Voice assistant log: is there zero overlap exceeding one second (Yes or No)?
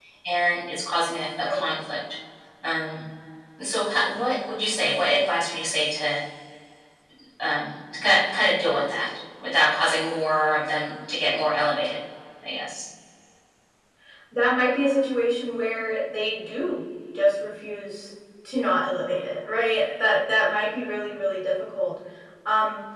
Yes